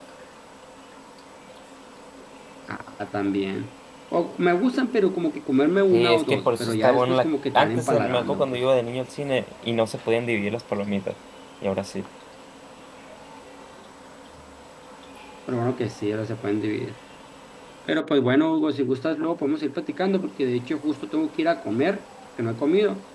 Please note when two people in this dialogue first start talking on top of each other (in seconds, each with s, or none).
5.9 s